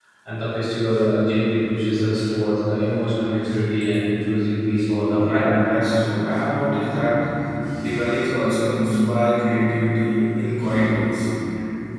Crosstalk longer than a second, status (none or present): none